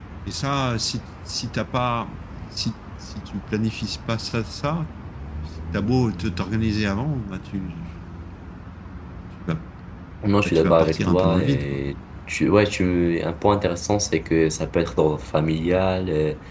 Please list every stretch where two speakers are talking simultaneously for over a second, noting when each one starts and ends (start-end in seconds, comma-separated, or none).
10.4-11.8